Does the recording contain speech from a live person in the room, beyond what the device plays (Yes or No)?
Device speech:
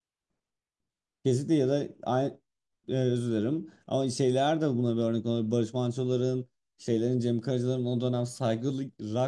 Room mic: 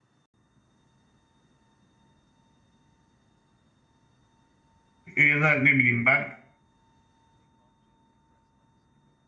Yes